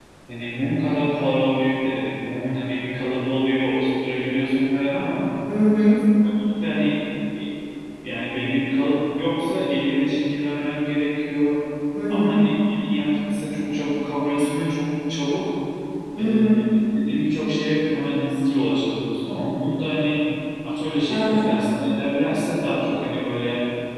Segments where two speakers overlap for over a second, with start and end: none

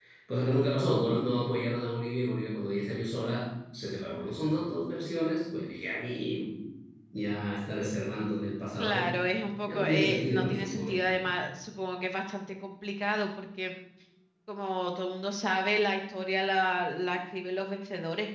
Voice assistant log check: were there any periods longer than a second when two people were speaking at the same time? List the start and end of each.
9.7-11.1

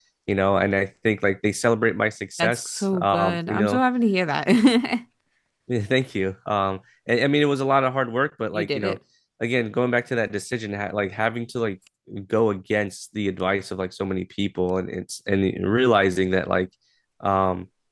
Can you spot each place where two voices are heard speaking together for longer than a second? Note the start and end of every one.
2.4-3.8

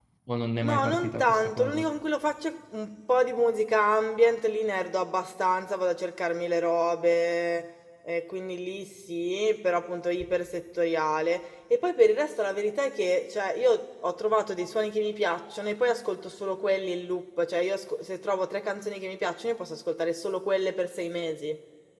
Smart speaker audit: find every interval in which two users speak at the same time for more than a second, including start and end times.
0.6-1.8

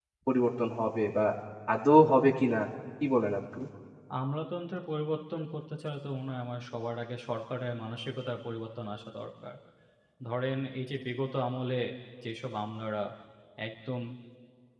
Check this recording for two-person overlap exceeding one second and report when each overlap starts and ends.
none

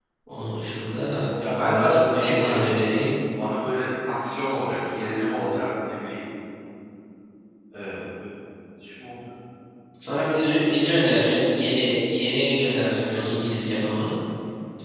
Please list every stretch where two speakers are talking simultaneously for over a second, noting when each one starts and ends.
1.6-2.8

